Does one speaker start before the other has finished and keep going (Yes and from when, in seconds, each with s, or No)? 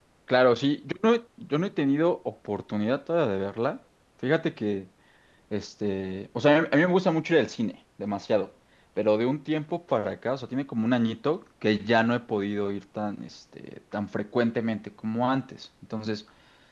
No